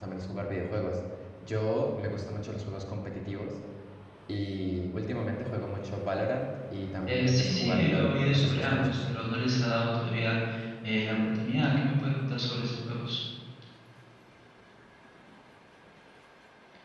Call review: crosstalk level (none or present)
present